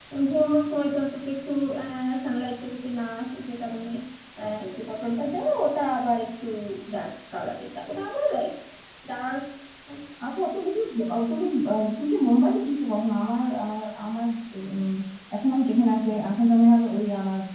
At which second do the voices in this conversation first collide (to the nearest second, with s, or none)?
none